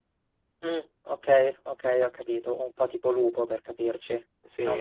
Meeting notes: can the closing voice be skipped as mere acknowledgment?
No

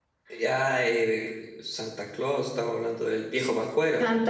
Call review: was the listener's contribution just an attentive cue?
No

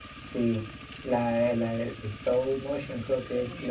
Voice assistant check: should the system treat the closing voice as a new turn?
Yes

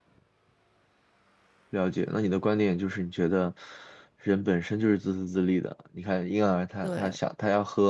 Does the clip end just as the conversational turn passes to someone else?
No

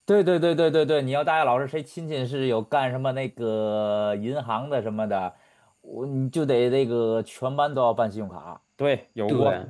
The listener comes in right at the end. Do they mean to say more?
Yes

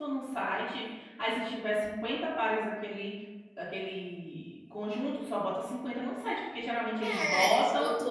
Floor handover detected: Yes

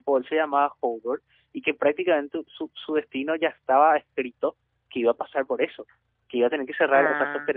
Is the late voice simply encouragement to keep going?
Yes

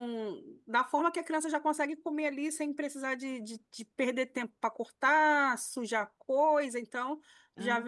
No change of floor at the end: Yes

